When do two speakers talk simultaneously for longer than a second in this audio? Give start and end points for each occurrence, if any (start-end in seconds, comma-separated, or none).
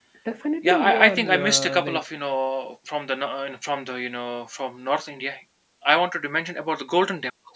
0.6-2.0